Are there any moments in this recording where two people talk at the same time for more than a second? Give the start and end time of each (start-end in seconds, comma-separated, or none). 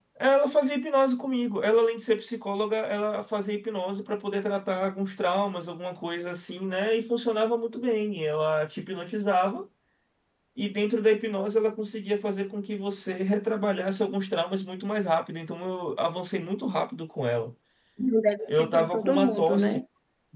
18.5-19.8